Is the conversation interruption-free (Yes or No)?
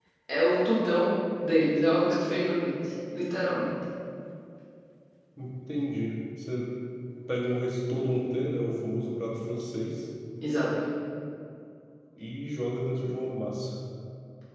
Yes